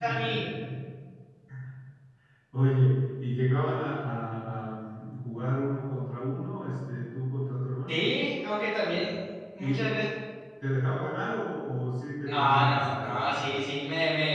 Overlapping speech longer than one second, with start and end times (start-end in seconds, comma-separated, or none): 12.2-13.6